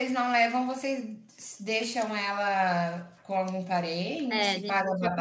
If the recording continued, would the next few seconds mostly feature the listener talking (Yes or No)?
Yes